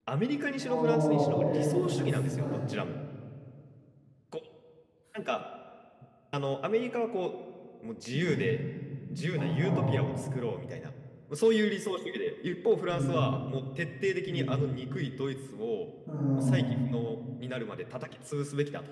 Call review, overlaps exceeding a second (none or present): present